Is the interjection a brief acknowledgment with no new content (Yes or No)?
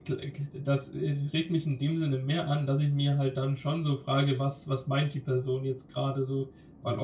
Yes